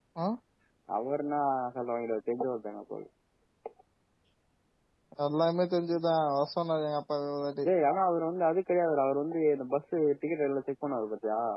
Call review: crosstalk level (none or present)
none